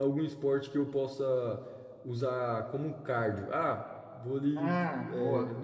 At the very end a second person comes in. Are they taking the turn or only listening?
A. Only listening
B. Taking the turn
A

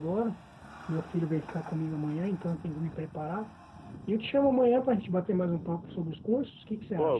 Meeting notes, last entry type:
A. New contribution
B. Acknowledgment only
A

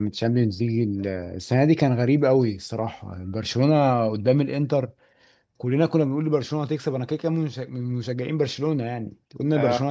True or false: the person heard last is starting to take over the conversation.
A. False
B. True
A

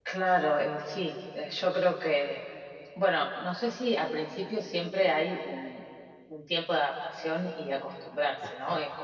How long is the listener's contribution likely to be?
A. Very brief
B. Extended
A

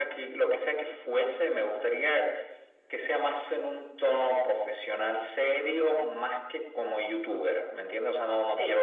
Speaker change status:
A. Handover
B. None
B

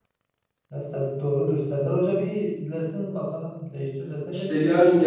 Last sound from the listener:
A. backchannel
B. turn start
B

